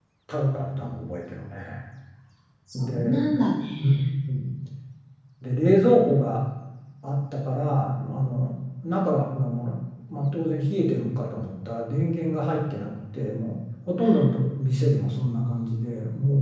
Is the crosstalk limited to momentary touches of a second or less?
Yes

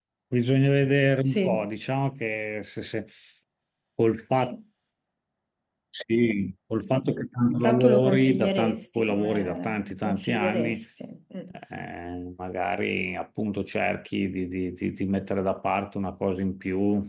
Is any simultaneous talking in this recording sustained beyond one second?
Yes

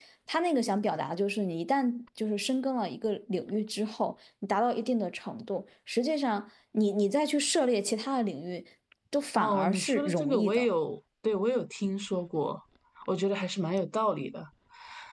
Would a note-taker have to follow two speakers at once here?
Yes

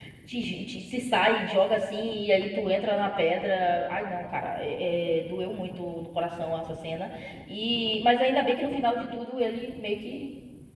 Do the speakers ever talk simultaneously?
No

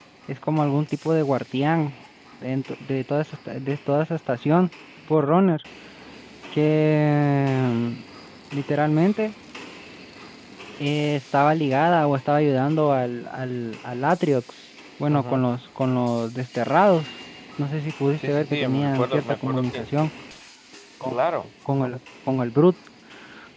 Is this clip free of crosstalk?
No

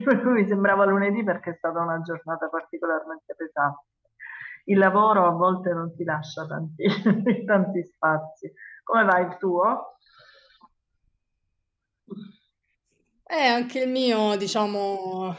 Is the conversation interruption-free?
Yes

